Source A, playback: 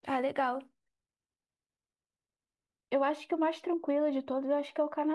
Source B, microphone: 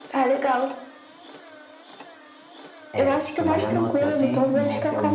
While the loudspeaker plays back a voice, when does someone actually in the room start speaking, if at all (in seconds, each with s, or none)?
2.9 s